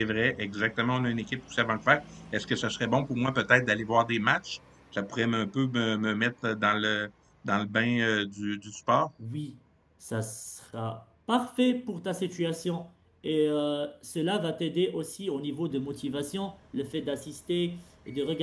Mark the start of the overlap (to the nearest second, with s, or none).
none